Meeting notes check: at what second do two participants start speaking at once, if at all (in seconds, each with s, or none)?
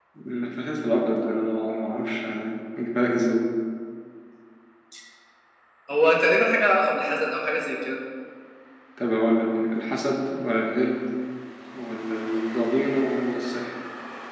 none